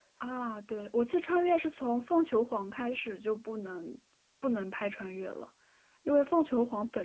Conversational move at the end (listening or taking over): listening